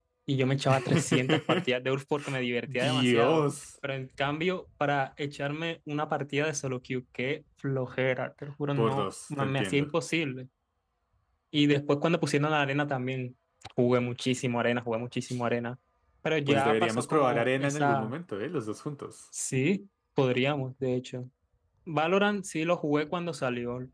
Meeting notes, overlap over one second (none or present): present